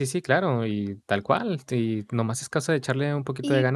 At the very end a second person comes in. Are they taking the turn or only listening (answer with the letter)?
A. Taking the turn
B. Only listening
A